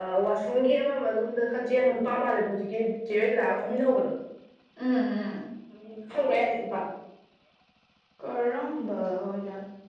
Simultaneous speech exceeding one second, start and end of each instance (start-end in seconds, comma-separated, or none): none